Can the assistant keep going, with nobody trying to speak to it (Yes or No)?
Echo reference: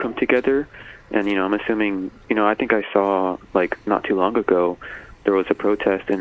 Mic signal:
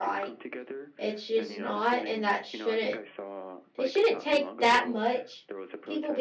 No